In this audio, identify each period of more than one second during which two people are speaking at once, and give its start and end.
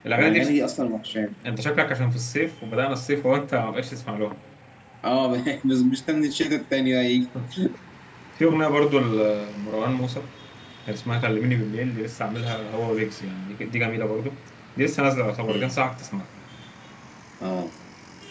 none

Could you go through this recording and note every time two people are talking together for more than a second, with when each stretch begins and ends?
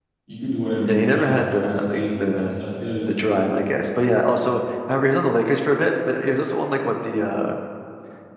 0.8-2.6

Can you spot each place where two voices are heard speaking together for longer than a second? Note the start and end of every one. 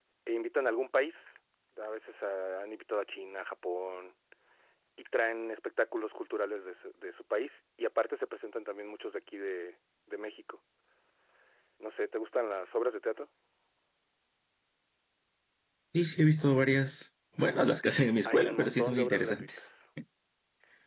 18.2-19.7

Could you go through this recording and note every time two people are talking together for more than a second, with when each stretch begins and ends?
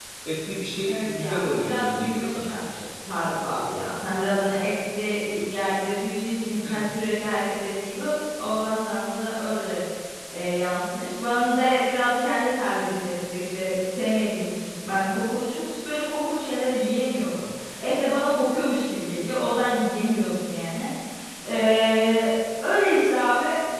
0.8-2.5

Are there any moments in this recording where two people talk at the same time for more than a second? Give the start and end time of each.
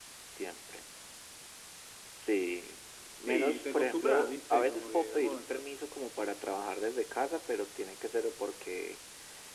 3.3-5.6

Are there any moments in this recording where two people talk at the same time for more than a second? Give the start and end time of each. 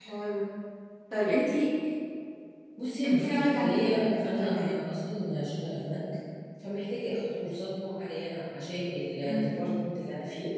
3.0-4.8

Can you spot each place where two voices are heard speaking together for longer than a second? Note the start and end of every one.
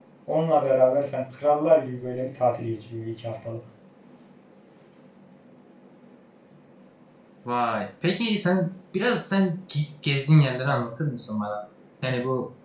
none

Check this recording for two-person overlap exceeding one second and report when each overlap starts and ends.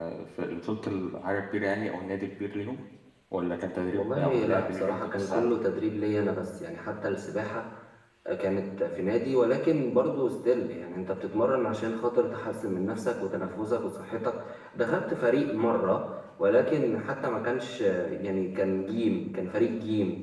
4.0-5.5

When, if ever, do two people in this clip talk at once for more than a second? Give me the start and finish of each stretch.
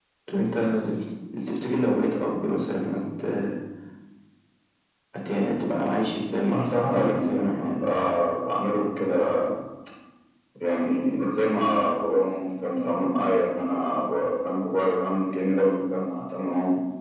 6.6-7.8

